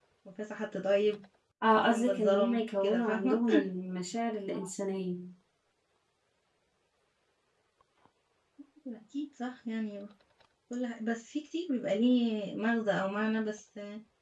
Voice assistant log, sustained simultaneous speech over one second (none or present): present